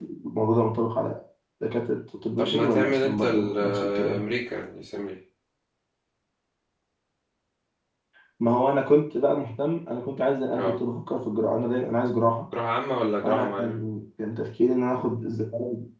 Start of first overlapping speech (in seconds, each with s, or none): 2.4 s